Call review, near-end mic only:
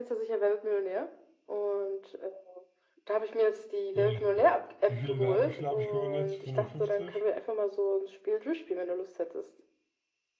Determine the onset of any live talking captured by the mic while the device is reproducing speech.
4 s

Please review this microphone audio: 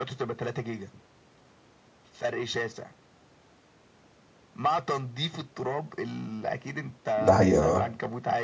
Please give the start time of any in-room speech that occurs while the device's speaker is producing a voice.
7 s

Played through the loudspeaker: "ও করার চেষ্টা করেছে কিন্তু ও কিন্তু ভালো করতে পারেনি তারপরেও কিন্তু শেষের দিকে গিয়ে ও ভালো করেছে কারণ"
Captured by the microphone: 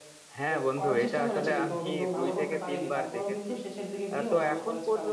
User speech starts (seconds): 0 s

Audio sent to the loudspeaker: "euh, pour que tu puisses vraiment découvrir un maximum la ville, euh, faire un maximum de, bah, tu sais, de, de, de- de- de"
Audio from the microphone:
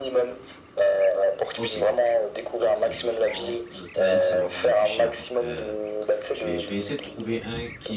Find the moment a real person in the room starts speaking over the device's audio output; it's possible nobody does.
2 s

